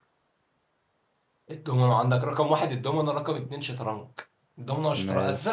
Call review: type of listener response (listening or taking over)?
listening